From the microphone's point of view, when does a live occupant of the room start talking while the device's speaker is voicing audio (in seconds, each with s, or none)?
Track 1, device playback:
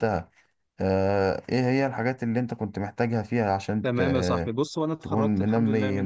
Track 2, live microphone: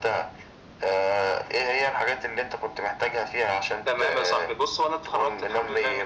none